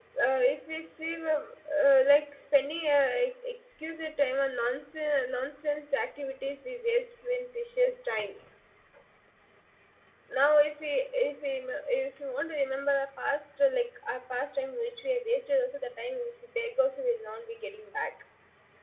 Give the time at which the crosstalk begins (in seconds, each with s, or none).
none